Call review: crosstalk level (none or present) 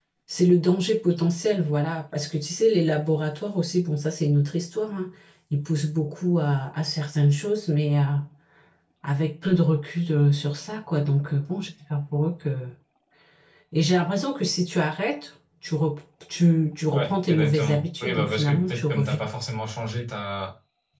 present